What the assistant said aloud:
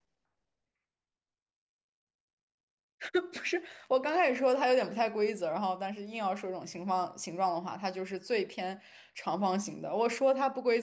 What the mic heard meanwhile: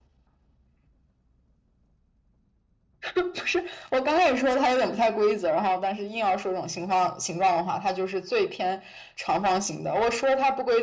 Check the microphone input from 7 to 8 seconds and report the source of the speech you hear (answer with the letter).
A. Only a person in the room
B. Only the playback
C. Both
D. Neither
B